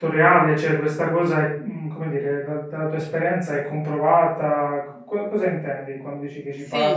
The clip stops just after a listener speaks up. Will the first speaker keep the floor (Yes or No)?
No